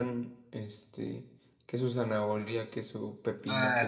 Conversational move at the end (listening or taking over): taking over